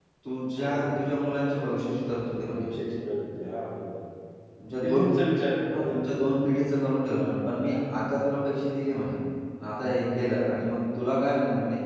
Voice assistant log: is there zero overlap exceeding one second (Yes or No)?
Yes